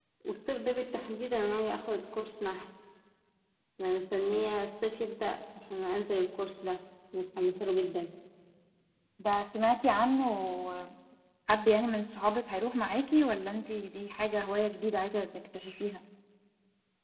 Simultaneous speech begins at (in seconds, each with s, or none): none